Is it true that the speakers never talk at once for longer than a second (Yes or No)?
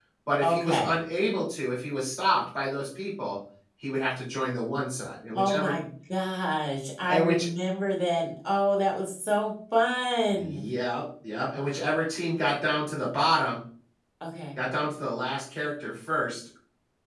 Yes